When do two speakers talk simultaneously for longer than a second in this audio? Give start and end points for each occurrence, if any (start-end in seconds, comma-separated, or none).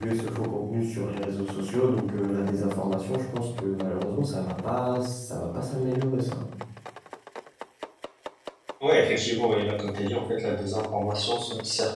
none